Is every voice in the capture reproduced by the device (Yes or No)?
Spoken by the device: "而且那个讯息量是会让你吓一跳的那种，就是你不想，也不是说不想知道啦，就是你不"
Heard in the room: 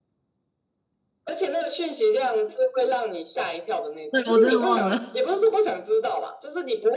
No